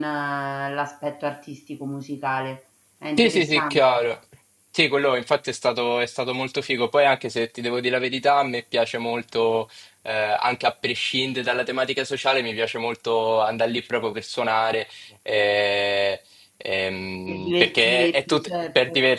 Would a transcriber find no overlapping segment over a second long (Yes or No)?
No